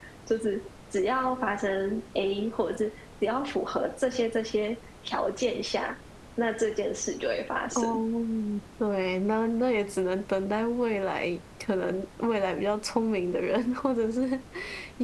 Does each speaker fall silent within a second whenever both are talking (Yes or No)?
Yes